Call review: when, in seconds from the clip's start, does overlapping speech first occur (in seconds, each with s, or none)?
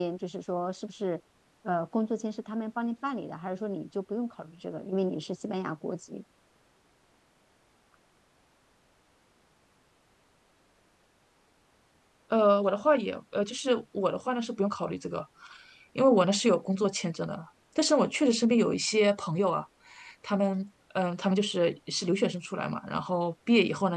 none